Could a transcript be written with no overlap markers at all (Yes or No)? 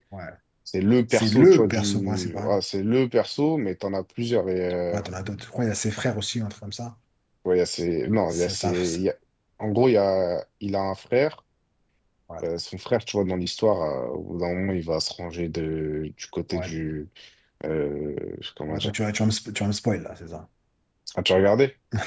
No